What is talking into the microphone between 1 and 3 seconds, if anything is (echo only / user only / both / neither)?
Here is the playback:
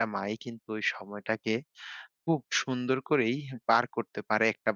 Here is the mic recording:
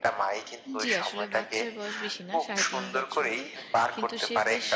both